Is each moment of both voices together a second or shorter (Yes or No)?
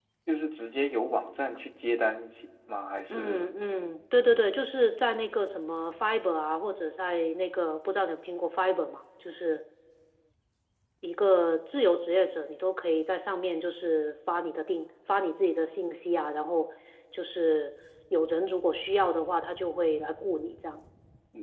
Yes